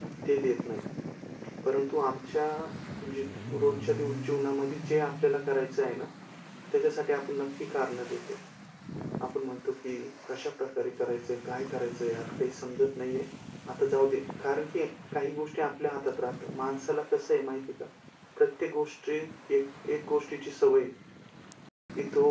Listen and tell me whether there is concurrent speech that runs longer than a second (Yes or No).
No